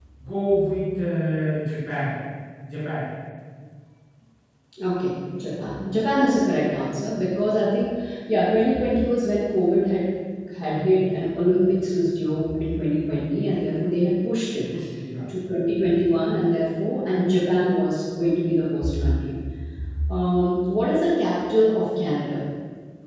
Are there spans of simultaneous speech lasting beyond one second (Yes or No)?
No